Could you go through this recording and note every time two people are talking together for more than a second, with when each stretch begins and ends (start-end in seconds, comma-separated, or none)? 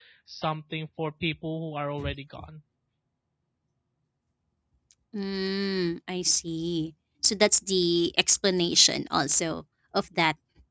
none